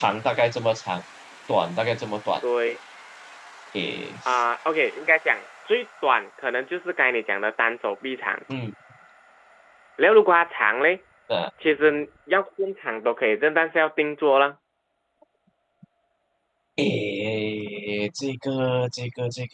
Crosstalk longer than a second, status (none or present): none